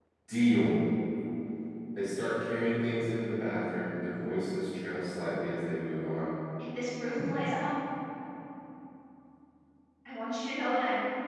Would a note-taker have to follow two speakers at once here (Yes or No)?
No